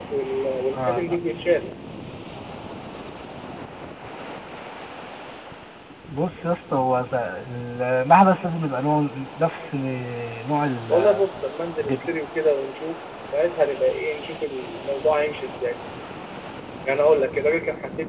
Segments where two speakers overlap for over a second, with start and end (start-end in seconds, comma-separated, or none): none